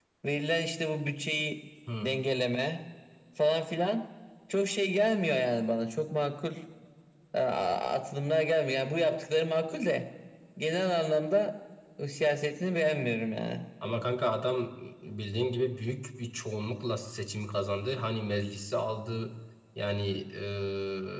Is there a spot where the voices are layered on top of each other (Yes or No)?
No